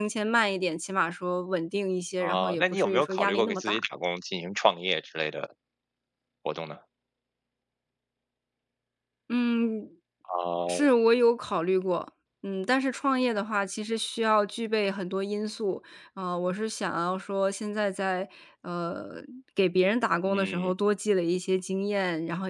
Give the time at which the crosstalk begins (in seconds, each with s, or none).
2.2 s